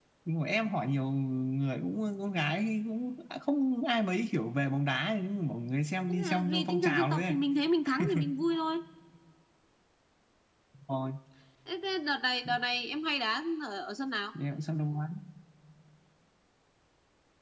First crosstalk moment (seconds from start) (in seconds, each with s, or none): 6.1 s